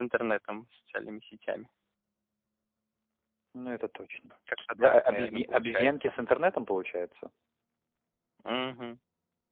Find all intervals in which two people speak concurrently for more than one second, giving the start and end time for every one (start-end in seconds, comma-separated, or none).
4.6-6.1